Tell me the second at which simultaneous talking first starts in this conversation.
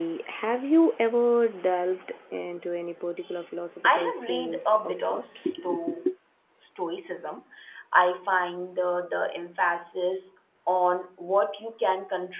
3.8 s

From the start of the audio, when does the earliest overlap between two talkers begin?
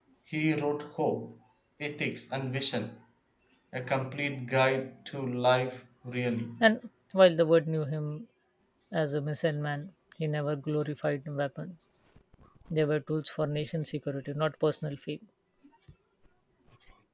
none

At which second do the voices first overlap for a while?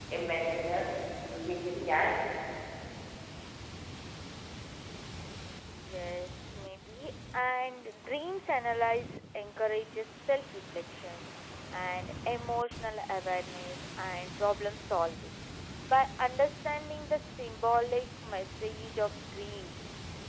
none

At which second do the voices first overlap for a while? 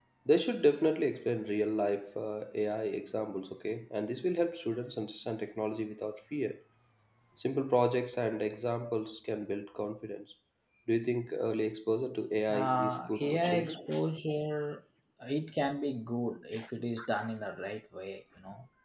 12.5 s

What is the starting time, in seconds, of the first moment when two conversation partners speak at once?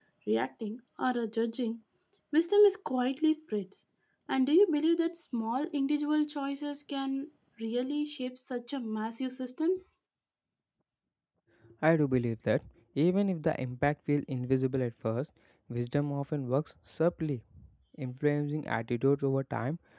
none

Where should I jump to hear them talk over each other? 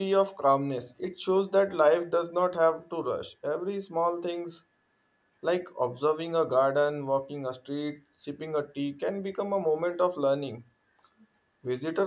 none

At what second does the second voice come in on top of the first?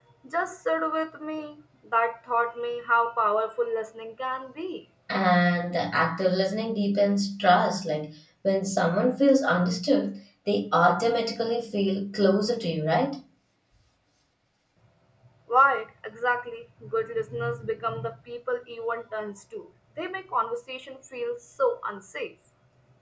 none

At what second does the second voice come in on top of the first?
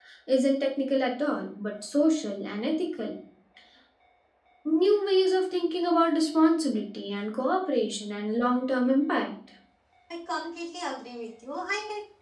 none

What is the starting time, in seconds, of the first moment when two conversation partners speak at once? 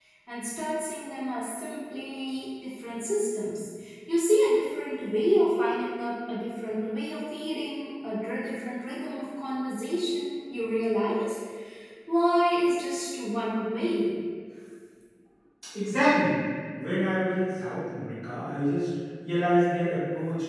none

